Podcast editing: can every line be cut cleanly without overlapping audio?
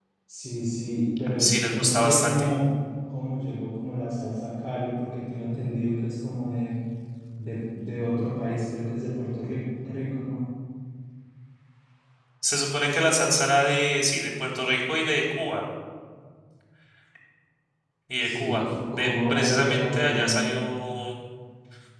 No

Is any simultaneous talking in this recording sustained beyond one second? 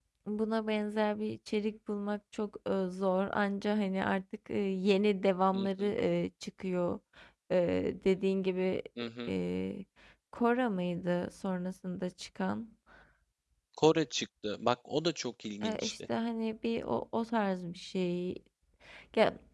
No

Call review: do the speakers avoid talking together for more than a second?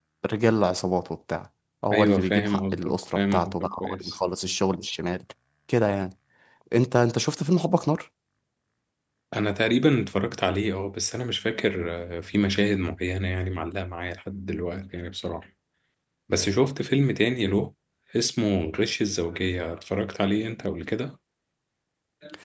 No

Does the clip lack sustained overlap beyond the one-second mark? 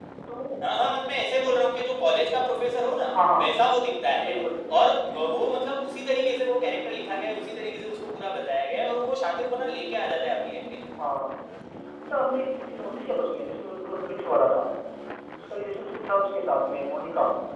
Yes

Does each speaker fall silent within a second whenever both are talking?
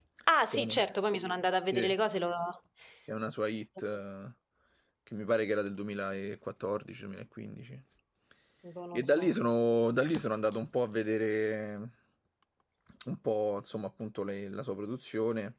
Yes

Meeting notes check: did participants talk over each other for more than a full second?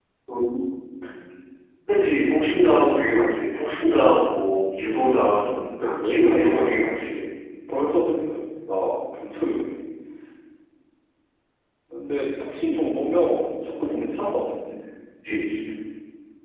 Yes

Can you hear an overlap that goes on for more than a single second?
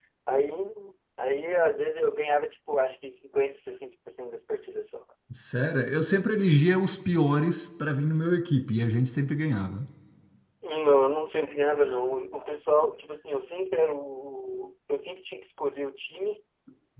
No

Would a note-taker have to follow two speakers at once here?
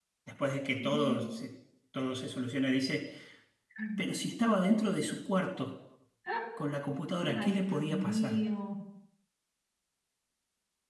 Yes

